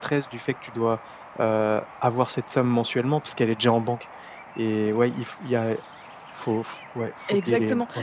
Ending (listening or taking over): taking over